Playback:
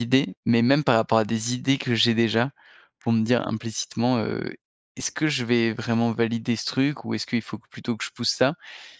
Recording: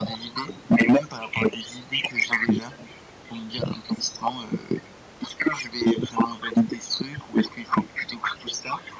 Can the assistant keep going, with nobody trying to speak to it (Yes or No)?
Yes